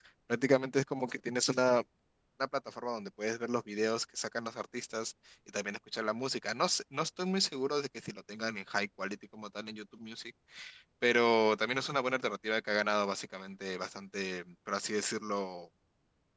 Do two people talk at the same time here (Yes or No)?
No